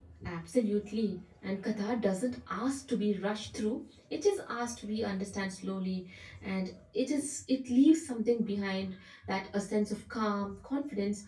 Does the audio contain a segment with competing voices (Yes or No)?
No